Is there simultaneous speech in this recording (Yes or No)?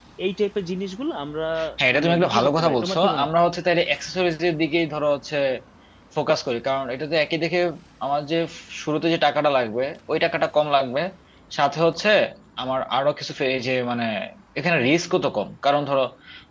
Yes